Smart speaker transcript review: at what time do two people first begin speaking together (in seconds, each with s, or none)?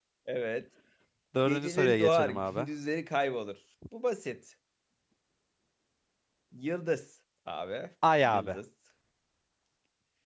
1.4 s